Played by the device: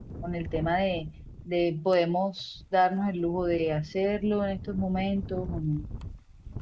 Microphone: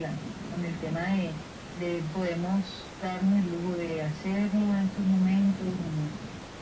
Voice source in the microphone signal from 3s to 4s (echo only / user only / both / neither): echo only